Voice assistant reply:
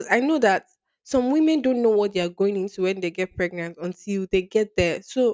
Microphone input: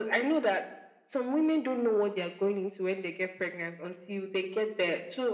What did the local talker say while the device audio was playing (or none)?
none